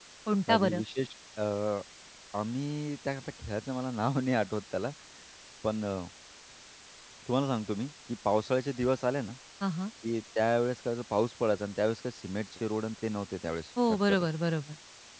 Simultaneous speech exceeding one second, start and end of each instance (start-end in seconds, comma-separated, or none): none